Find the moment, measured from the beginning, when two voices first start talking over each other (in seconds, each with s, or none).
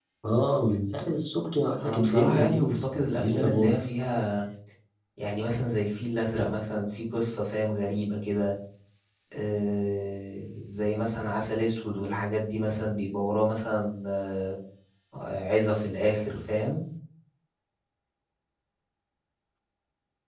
1.8 s